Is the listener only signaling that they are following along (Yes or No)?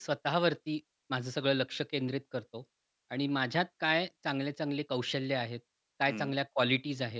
Yes